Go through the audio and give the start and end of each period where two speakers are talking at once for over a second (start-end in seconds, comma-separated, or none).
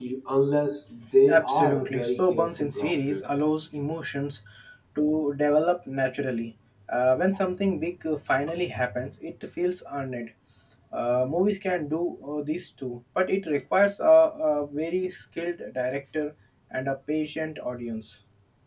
1.3-3.2